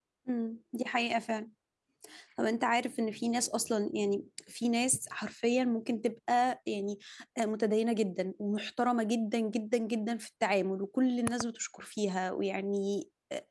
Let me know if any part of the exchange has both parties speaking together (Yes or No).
No